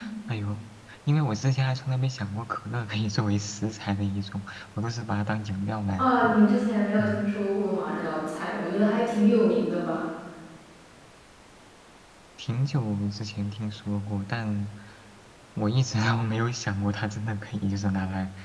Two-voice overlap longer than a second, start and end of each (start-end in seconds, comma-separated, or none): none